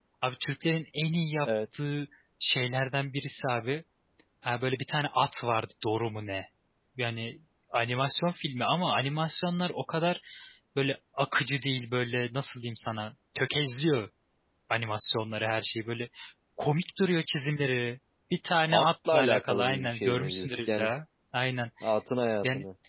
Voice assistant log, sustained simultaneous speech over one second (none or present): present